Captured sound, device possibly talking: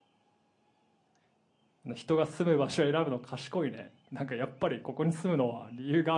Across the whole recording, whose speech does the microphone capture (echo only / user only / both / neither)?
user only